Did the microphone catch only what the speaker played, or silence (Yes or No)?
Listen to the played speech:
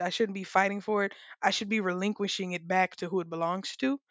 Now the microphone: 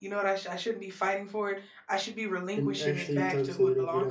No